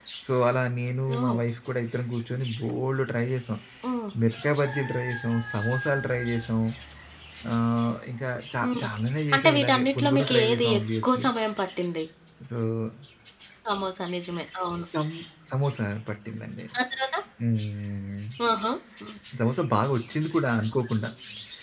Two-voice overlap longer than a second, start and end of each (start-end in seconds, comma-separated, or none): 9.3-11.3